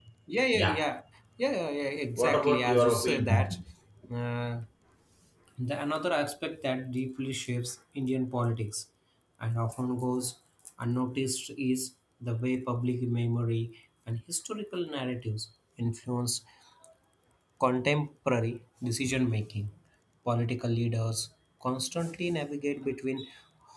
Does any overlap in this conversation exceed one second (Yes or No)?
Yes